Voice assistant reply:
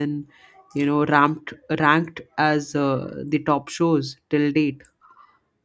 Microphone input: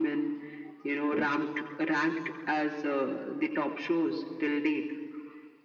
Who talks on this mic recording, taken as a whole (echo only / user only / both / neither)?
both